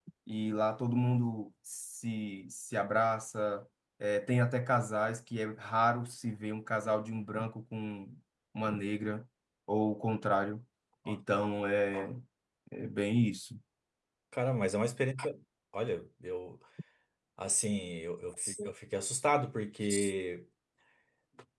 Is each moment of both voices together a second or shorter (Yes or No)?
Yes